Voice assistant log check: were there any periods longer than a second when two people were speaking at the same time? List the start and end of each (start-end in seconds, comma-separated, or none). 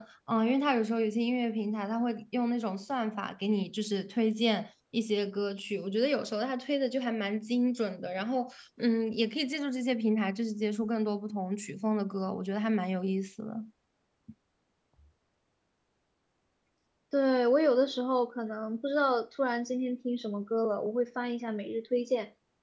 none